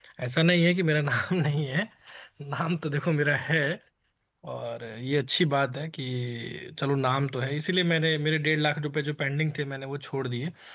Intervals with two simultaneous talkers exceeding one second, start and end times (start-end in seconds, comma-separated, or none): none